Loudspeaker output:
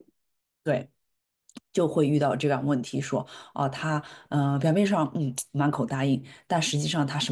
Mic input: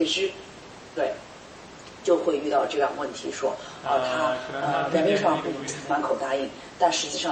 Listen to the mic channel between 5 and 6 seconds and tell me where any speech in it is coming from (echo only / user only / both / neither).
both